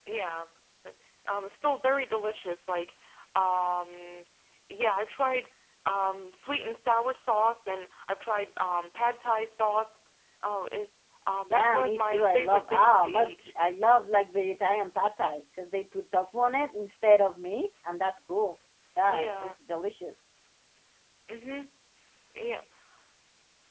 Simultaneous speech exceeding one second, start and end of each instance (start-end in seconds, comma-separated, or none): 11.5-13.5